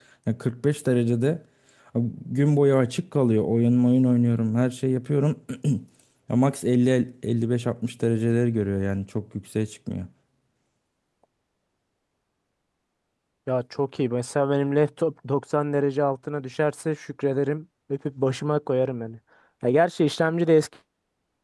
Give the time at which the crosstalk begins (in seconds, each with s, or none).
none